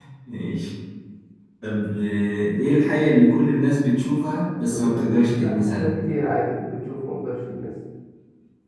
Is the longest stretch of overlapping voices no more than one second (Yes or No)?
No